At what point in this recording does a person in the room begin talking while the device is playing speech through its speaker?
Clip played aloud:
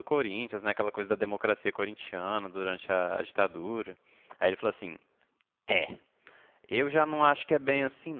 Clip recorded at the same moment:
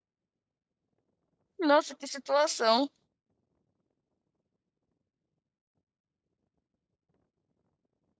1.6 s

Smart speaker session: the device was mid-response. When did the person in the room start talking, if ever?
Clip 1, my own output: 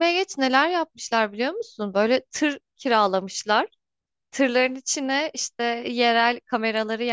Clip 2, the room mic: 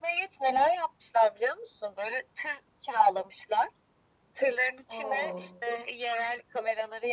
4.9 s

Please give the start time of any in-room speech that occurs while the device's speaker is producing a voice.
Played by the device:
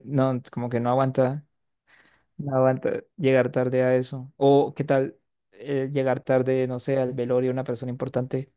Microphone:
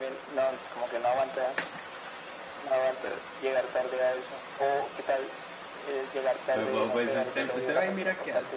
6.5 s

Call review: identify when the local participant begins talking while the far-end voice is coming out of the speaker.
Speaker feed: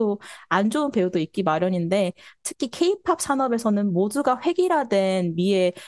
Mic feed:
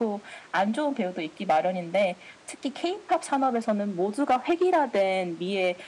none

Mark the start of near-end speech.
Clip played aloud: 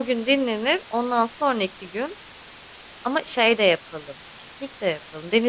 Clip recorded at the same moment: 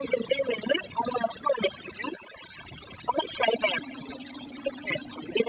none

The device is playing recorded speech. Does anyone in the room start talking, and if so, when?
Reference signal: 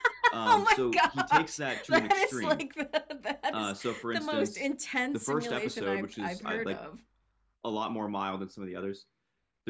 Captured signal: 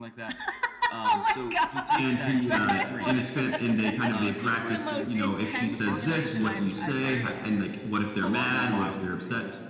2.0 s

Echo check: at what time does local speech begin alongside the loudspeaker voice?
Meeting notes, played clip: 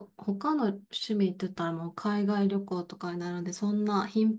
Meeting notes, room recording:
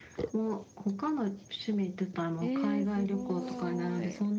2.4 s

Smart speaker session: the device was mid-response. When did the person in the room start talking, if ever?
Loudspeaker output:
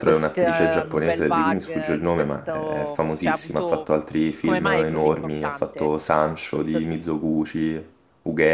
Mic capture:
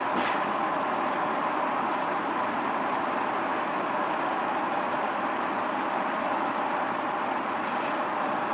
none

